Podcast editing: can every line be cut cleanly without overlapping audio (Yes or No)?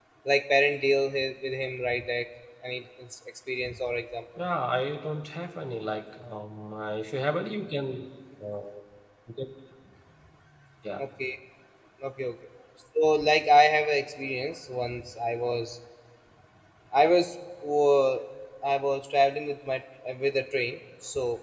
Yes